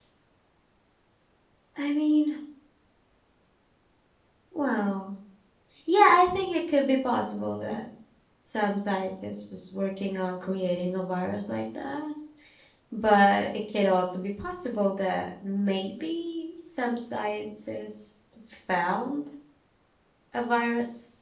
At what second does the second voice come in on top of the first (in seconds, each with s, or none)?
none